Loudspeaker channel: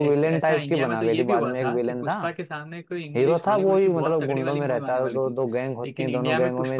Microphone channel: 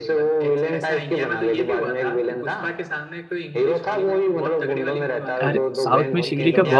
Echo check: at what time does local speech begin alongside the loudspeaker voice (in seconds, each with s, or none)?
5.4 s